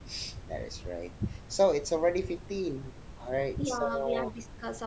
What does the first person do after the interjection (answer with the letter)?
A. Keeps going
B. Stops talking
B